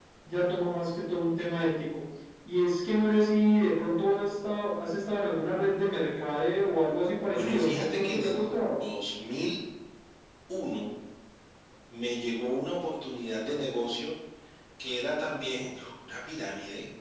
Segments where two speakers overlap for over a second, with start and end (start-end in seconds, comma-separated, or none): 7.3-8.8